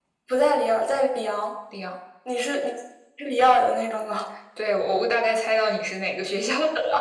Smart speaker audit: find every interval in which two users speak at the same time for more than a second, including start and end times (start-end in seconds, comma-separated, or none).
none